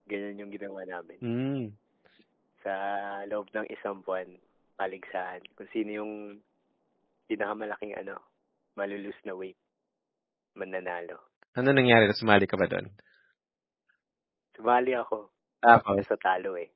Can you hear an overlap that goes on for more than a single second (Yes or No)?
No